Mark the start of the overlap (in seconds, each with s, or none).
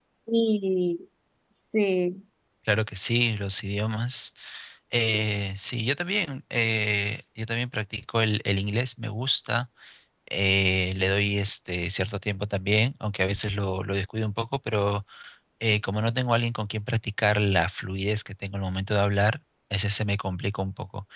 none